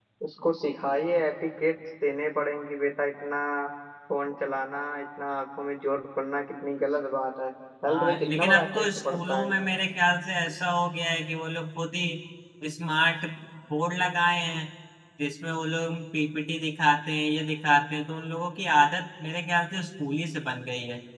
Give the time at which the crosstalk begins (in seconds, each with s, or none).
7.9 s